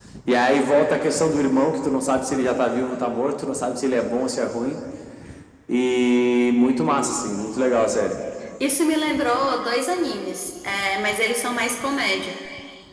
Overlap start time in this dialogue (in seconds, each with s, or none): none